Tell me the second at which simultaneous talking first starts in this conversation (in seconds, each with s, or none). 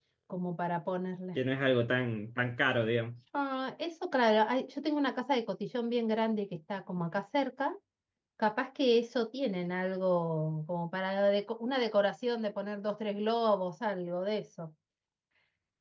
none